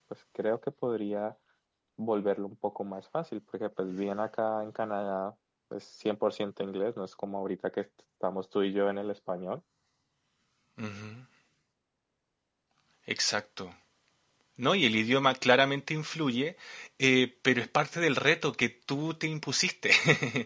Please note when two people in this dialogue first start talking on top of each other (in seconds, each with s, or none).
none